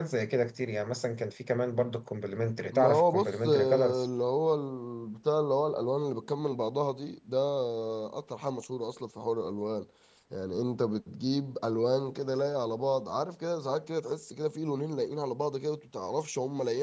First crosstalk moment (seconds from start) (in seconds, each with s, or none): 2.7 s